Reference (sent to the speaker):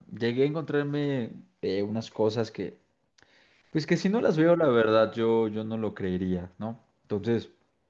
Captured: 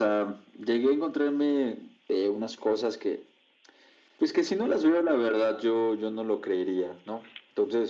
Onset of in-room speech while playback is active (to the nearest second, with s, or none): none